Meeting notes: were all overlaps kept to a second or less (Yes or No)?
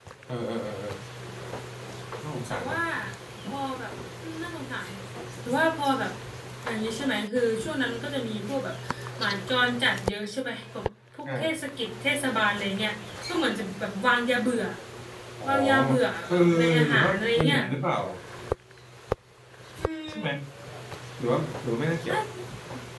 No